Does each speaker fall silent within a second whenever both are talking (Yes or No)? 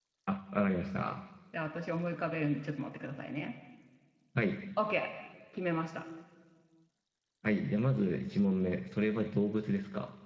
Yes